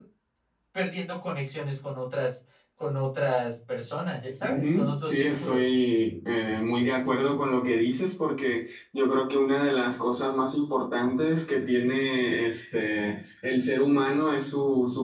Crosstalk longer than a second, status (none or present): present